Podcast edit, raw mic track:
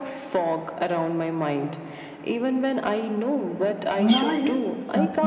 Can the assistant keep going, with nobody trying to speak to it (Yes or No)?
No